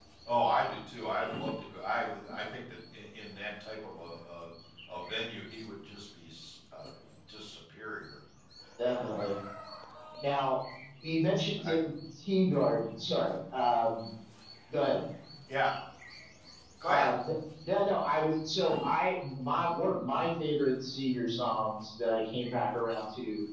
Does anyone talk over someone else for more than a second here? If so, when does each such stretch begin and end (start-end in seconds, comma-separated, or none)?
none